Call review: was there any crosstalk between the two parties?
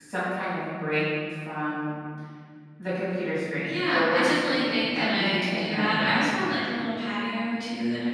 Yes, from 3.7 s

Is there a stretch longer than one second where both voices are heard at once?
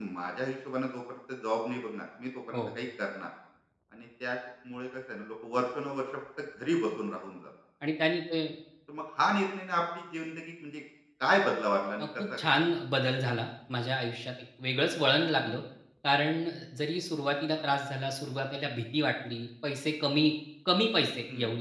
No

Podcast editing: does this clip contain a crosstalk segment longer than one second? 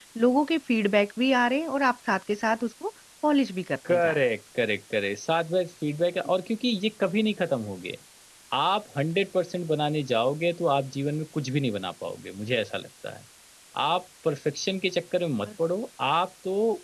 No

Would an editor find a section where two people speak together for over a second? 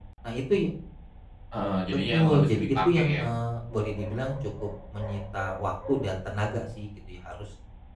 Yes, from 1.9 s

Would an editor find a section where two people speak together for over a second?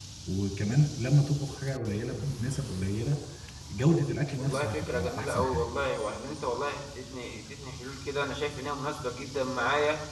Yes, from 4.4 s

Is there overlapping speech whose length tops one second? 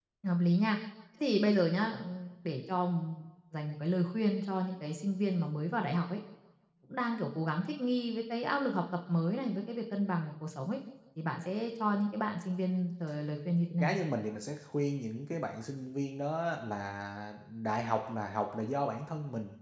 No

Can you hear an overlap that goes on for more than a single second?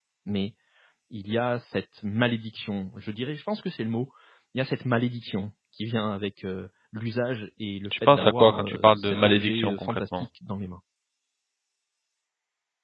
Yes, from 7.8 s

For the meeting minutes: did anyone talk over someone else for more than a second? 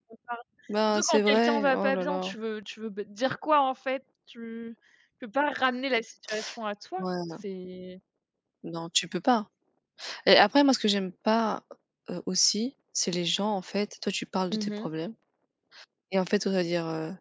Yes, from 0.9 s

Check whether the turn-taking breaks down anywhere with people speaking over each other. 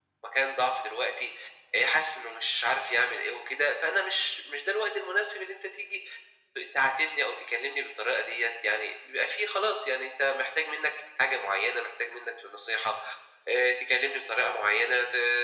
No

